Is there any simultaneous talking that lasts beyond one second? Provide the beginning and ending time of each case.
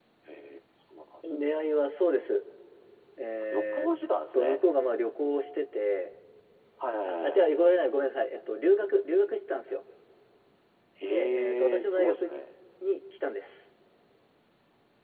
11.0-12.4

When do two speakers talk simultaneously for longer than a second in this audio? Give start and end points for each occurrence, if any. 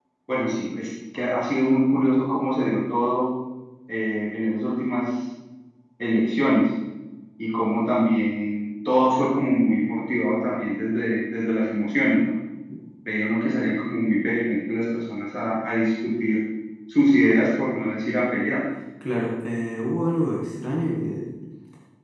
none

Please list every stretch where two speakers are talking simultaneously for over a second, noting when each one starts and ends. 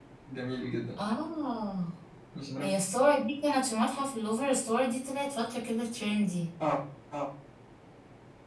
none

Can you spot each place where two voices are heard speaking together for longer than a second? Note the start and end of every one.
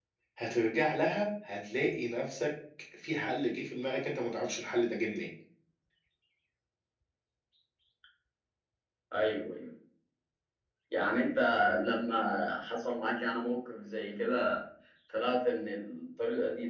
none

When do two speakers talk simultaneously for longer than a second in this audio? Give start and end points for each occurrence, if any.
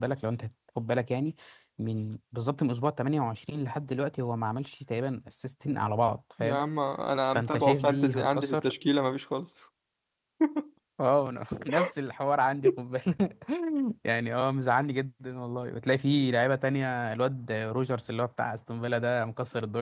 7.3-8.7

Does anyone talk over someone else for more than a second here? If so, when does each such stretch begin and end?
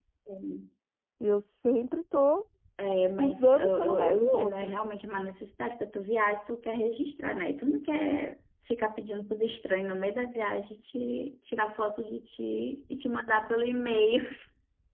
3.2-4.7

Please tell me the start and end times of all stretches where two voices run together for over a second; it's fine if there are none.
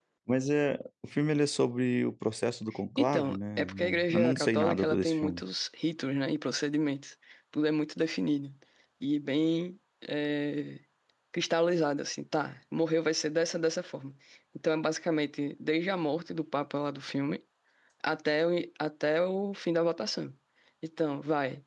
3.0-5.4

